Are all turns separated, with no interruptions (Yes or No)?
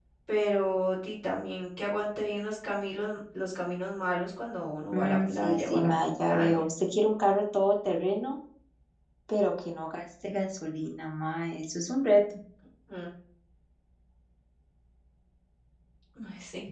No